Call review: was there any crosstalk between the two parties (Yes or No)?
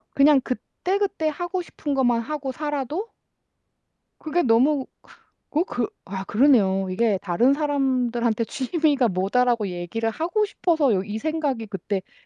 No